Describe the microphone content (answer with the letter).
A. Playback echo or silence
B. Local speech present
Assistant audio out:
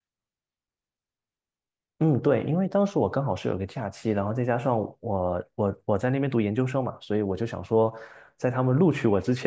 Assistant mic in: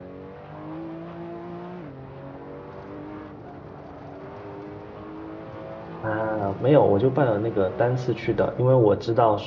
B